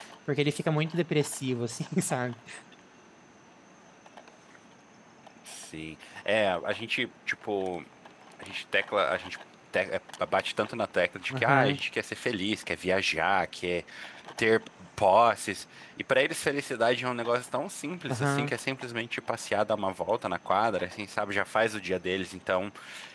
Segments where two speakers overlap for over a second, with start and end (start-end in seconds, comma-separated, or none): none